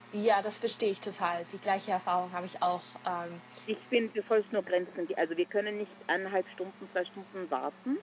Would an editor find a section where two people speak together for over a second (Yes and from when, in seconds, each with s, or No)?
No